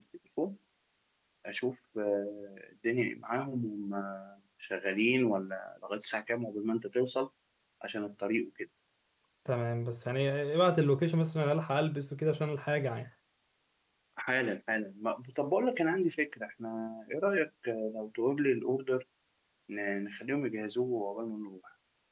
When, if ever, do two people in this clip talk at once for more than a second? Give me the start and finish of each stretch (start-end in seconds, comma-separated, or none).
none